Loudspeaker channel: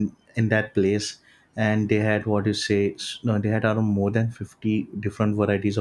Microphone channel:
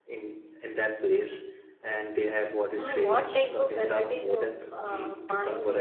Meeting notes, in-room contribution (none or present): present